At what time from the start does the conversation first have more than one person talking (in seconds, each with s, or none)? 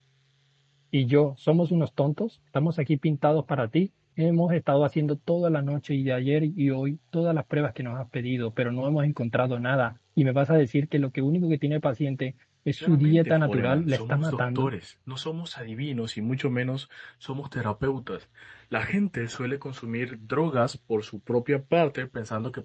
12.8 s